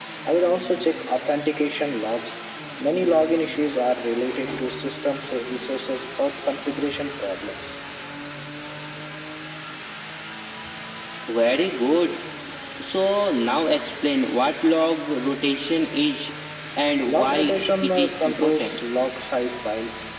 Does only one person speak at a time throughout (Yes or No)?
No